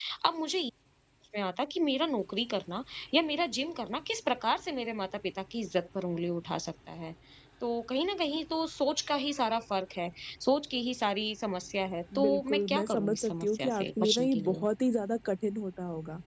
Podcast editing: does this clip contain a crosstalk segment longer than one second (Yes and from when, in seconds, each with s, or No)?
Yes, from 12.1 s